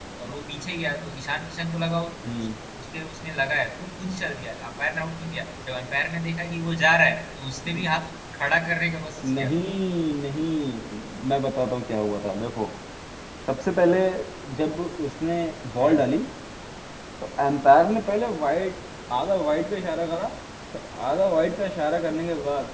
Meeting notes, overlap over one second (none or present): none